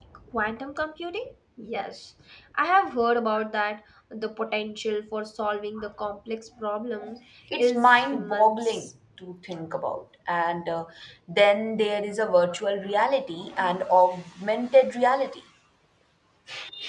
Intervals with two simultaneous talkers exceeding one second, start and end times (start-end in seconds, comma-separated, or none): 7.6-8.9